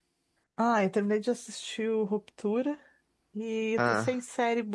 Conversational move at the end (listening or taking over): listening